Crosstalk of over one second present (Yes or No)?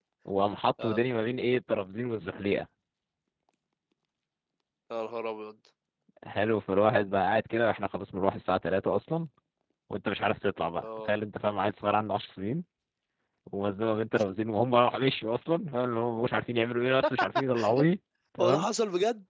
No